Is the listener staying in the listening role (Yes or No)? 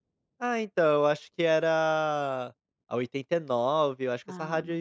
Yes